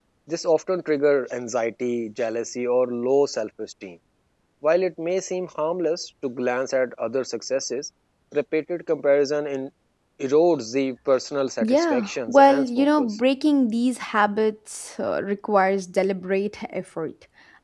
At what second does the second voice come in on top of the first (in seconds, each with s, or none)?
11.6 s